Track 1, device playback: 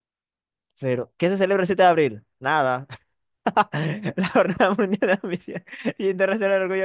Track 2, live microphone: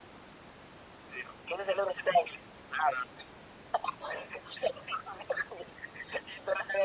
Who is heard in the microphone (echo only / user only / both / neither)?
echo only